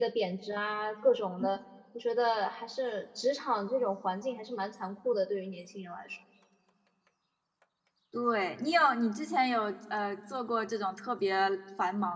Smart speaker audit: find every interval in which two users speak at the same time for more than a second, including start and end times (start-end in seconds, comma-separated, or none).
none